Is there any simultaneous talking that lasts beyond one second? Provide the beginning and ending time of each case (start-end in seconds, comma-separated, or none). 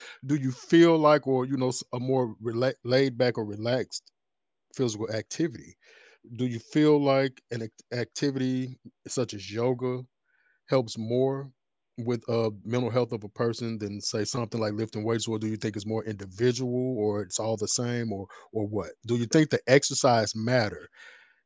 none